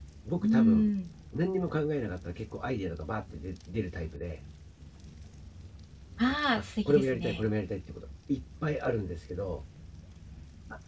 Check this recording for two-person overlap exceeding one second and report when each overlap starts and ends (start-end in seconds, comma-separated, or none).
6.3-7.5